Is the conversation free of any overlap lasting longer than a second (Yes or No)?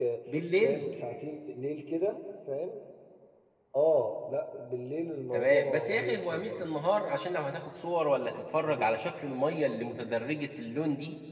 No